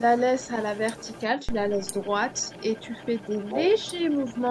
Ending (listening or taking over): listening